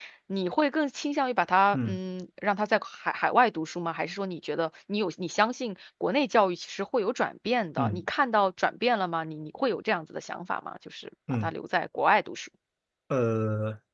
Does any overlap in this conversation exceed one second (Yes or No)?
No